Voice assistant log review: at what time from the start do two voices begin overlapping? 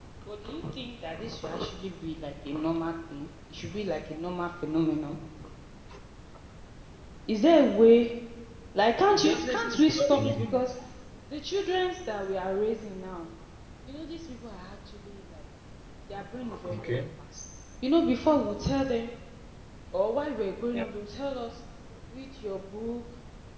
9.1 s

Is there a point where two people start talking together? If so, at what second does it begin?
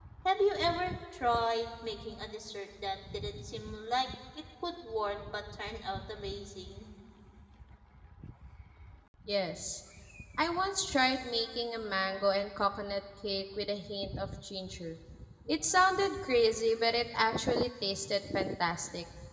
none

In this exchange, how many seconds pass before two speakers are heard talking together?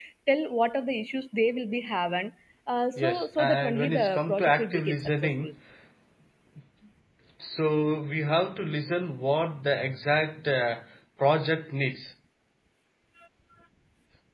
3.0 s

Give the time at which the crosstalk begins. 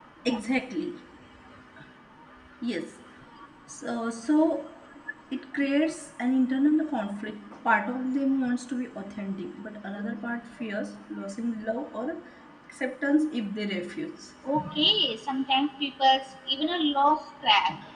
none

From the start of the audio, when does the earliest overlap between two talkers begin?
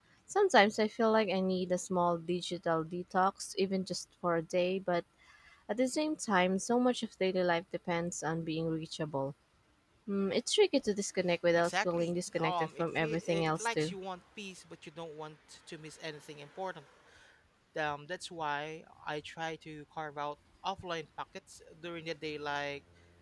11.5 s

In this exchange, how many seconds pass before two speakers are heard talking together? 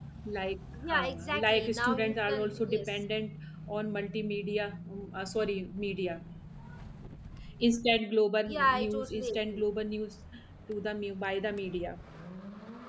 0.9 s

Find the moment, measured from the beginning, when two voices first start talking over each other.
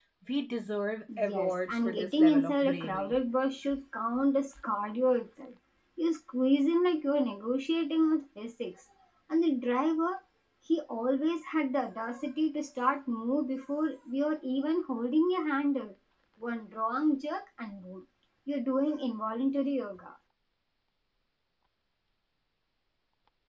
1.2 s

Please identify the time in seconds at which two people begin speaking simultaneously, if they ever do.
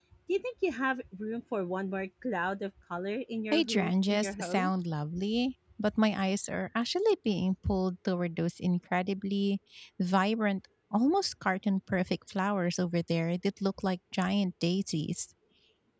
3.5 s

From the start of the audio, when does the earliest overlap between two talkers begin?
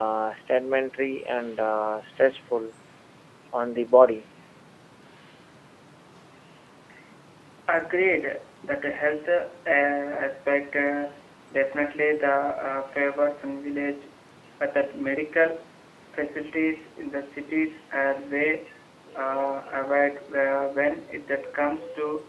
none

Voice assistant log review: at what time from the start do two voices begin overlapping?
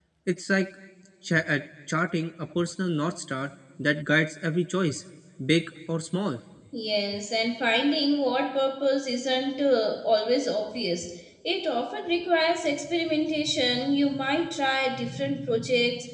none

